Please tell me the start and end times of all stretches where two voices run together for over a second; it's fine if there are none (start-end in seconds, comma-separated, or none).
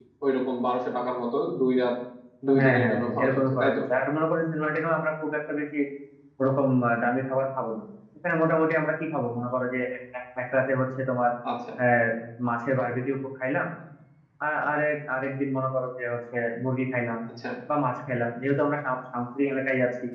2.6-3.8